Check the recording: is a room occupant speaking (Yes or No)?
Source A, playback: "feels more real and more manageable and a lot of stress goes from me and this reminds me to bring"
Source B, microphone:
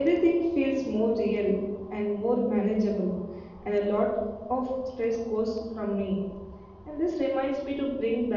No